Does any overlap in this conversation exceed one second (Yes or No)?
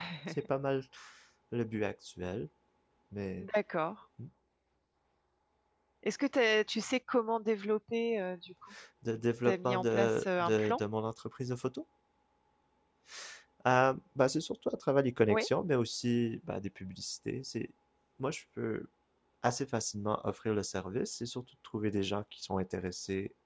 Yes